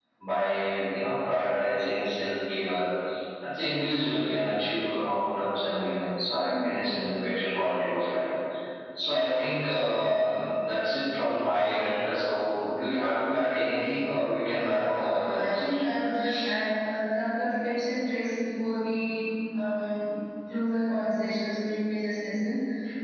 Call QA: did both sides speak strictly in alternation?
No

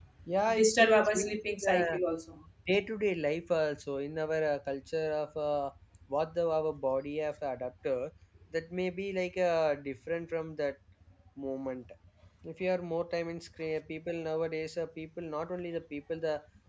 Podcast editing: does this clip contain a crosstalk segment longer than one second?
Yes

